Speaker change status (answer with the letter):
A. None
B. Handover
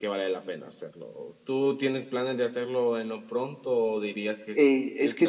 B